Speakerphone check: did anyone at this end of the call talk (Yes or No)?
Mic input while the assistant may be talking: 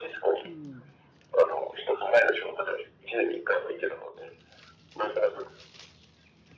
Yes